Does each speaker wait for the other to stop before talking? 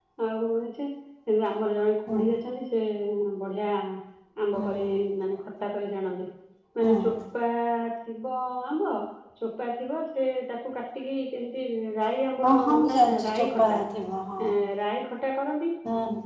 No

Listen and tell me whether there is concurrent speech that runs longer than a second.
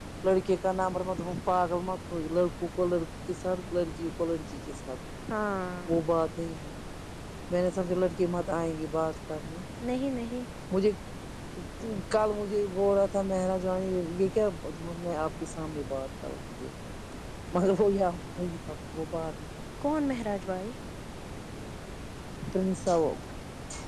No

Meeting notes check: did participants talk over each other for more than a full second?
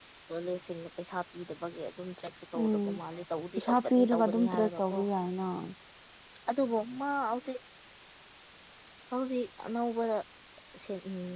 Yes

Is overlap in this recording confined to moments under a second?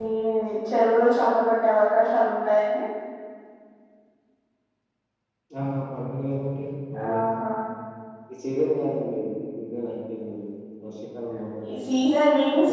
Yes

